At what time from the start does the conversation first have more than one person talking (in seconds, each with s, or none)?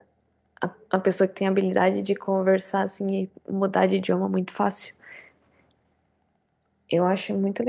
none